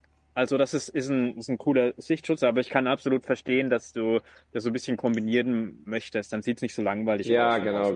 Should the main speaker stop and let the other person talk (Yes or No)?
Yes